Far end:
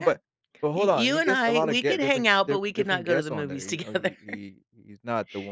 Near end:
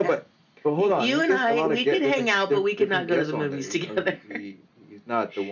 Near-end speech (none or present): none